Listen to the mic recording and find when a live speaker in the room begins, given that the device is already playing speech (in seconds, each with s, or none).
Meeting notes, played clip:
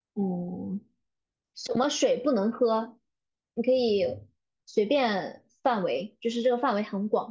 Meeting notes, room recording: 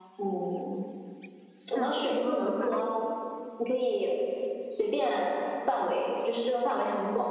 1.7 s